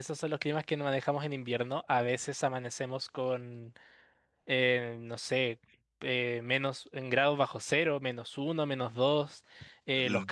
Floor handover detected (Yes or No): No